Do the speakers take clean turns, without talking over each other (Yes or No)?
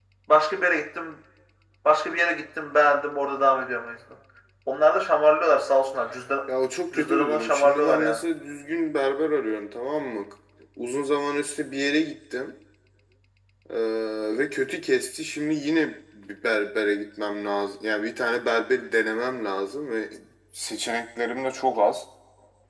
No